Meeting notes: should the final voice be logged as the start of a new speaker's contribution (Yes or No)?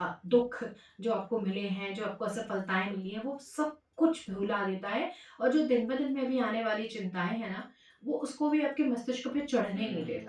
Yes